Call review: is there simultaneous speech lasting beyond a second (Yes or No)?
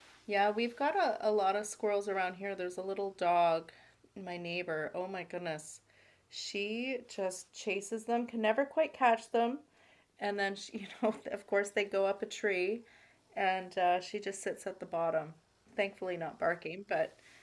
No